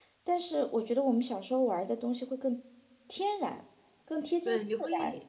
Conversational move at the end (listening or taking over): taking over